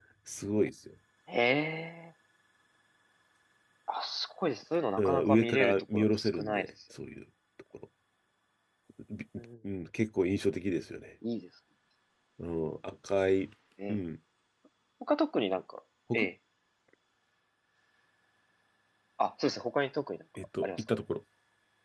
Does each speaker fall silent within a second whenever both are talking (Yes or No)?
No